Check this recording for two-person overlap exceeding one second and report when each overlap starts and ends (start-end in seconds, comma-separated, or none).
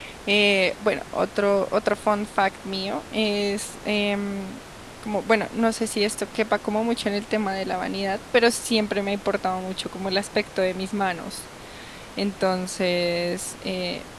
none